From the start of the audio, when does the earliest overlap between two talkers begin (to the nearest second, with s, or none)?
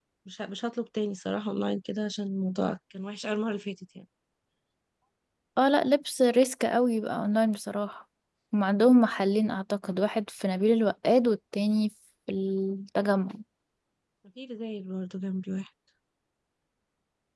none